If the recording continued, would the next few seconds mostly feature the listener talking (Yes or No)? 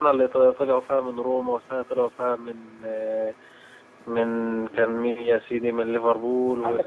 Yes